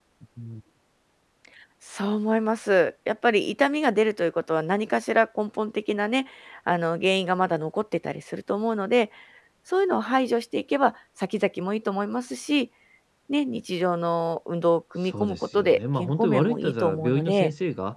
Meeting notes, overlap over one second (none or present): present